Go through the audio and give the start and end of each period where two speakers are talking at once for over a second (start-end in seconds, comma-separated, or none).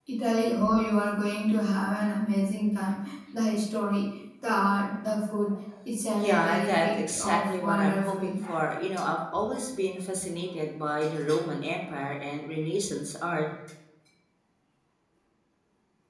6.2-8.3